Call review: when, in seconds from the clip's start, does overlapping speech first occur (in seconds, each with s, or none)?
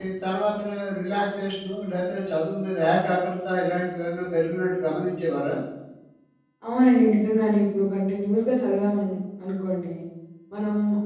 none